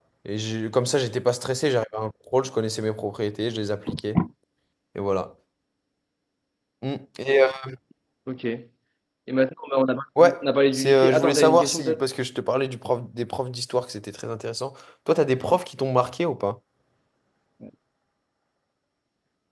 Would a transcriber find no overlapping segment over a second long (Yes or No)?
No